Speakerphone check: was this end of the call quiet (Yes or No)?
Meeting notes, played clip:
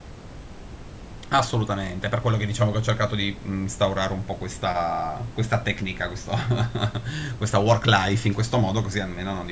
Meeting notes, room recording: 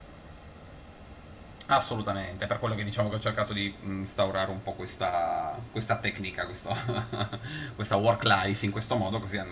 Yes